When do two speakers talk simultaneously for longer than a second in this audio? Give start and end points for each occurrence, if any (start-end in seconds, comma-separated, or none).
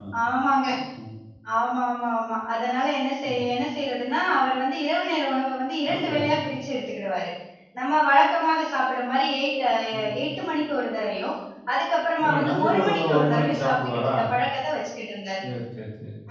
12.2-14.1